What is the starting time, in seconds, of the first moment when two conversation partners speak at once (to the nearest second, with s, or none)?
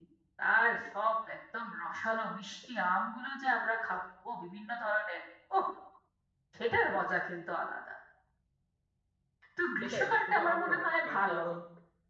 10 s